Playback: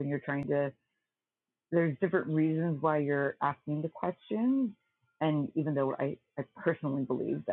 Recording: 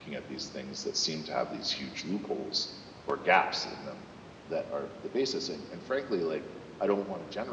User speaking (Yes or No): Yes